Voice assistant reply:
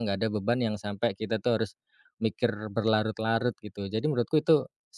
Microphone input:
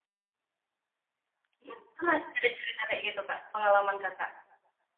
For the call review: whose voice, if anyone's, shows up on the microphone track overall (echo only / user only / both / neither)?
user only